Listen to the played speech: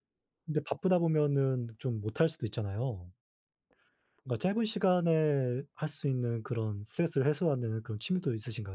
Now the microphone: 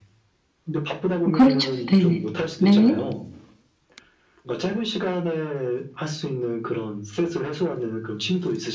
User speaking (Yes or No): Yes